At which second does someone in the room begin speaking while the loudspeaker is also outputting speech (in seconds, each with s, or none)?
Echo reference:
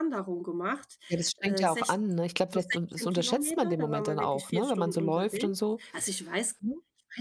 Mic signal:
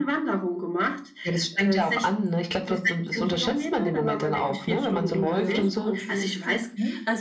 5.4 s